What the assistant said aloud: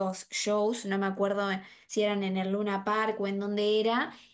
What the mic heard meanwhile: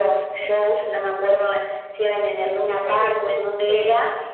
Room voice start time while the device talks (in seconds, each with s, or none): 2.4 s